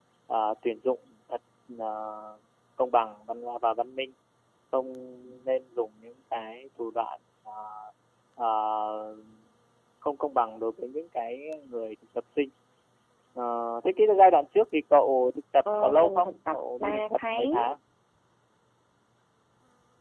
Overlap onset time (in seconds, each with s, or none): 15.7 s